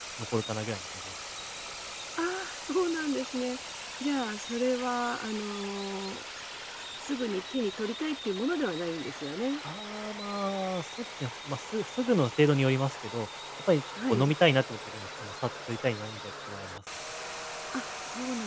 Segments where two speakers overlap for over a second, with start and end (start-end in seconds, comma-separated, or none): none